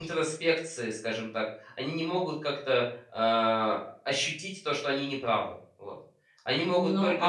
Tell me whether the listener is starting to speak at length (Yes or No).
Yes